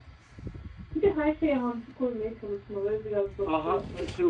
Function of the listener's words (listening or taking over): taking over